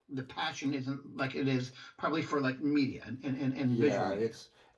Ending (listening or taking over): taking over